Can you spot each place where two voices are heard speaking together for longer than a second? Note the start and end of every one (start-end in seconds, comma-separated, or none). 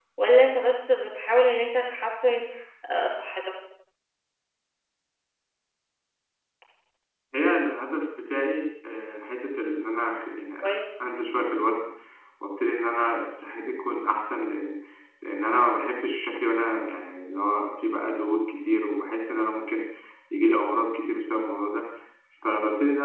none